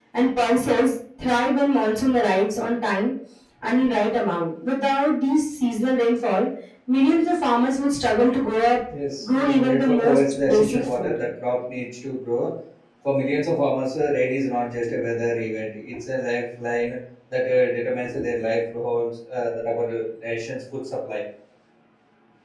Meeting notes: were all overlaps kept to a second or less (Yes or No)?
No